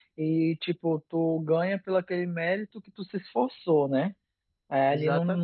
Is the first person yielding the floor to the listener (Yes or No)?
No